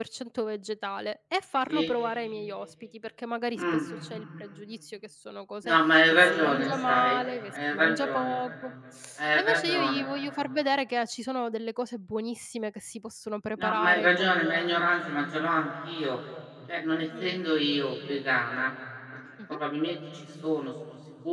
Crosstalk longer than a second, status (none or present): present